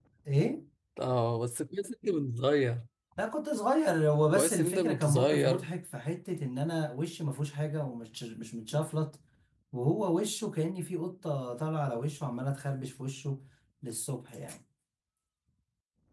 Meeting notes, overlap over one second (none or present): present